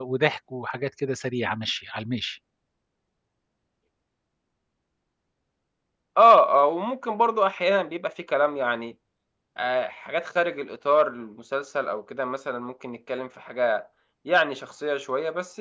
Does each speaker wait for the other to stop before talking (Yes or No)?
Yes